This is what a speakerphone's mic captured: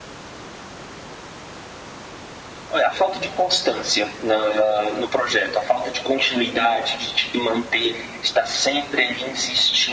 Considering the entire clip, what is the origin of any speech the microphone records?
echo only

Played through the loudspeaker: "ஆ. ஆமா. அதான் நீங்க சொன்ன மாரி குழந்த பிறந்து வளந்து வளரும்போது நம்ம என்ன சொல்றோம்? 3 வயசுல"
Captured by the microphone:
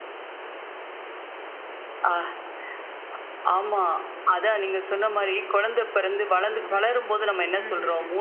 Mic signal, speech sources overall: both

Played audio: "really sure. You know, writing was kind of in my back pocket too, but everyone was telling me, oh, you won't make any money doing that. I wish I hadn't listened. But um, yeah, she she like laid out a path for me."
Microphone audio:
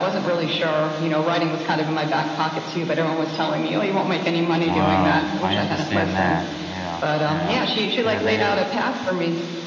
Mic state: both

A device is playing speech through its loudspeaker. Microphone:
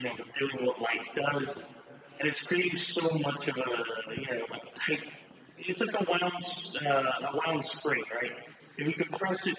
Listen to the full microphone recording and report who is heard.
echo only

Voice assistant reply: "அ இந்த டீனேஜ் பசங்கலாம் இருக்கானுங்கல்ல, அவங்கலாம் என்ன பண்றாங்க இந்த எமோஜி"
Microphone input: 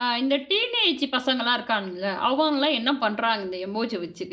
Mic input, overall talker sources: echo only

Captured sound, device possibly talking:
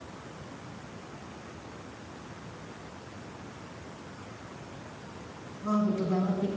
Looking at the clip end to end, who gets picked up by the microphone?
user only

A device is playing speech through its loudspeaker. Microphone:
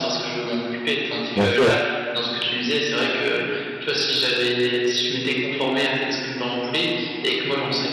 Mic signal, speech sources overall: both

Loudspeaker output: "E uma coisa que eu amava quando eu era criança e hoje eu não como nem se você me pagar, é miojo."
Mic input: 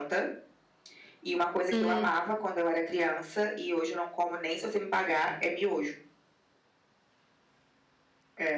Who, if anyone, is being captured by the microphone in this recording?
both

